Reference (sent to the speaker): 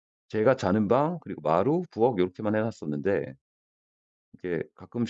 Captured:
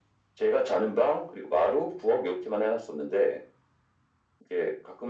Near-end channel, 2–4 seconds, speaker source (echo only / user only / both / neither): echo only